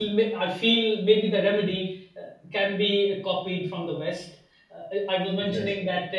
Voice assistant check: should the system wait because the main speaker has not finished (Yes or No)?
Yes